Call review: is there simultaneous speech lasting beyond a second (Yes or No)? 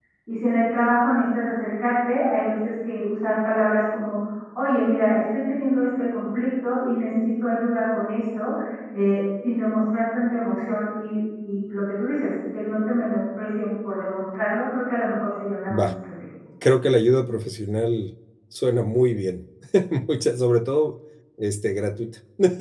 No